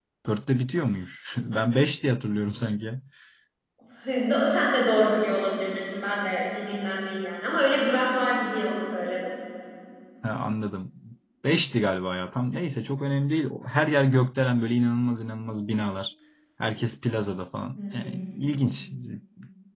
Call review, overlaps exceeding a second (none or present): none